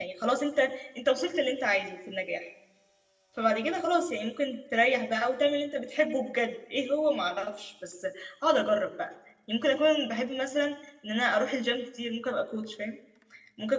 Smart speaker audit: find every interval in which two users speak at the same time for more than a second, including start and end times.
none

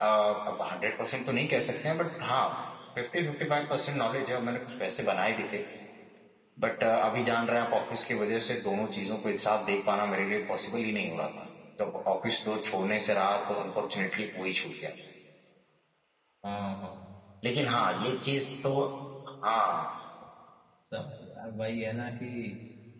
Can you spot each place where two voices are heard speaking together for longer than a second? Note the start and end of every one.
none

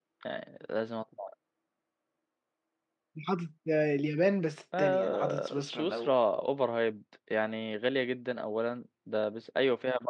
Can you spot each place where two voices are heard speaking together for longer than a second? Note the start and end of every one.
4.8-6.1

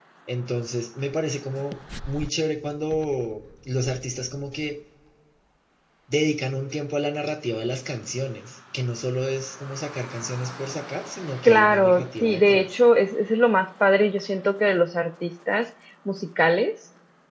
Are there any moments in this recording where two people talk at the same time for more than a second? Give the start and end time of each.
11.4-12.7

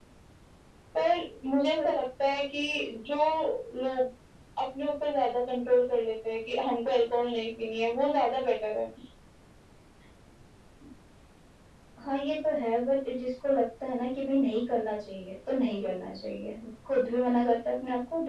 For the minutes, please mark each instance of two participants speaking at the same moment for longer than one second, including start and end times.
none

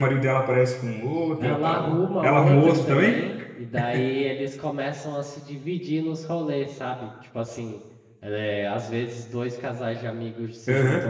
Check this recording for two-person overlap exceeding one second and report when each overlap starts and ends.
1.4-3.3

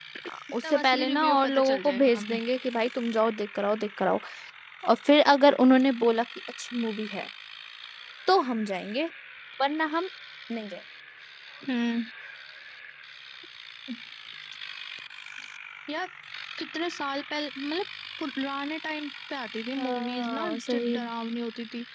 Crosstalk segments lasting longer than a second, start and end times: 0.6-2.4, 19.8-21.0

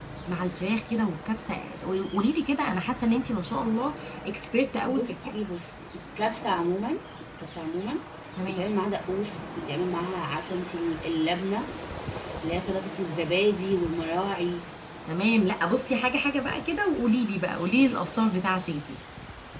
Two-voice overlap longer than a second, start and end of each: none

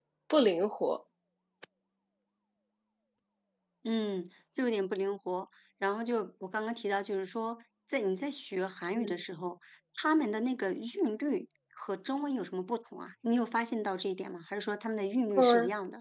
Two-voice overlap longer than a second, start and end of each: none

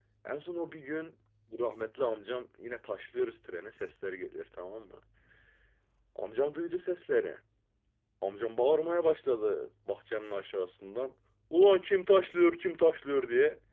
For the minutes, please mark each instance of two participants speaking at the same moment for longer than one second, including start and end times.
none

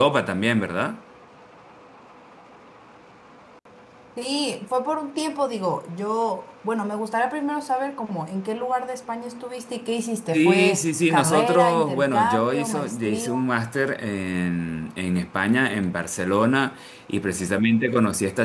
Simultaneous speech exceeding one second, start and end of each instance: 10.3-13.3

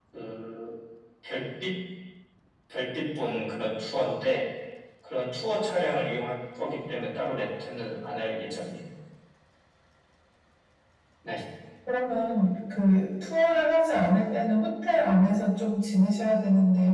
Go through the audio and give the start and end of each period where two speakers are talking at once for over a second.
none

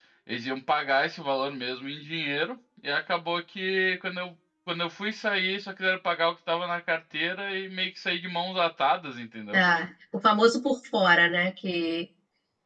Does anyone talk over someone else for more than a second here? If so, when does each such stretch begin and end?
none

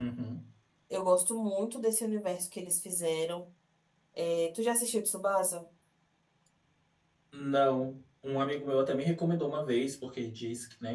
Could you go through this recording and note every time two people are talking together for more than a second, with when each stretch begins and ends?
none

